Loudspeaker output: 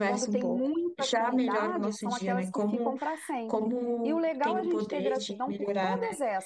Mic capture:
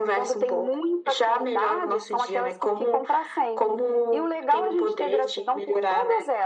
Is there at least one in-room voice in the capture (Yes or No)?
No